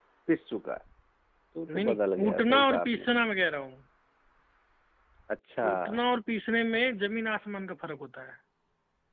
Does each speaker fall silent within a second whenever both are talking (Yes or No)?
No